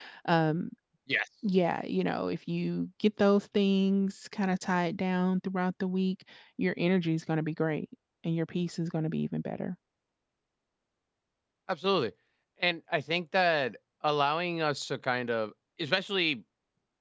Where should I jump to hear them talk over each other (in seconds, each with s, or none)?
none